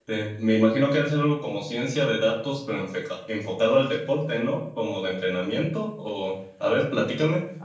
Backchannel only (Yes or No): No